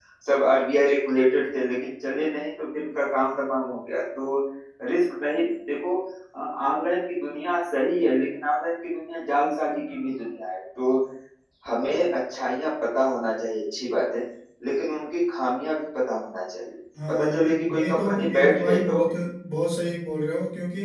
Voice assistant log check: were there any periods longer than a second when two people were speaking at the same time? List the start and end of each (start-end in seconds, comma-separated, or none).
17.1-19.0